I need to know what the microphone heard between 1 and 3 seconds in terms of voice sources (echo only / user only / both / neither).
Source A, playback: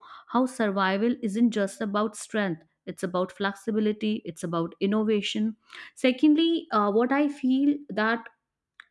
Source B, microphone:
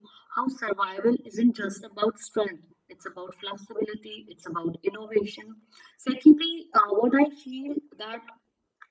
echo only